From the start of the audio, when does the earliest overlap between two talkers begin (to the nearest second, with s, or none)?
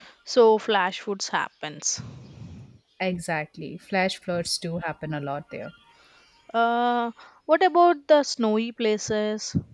none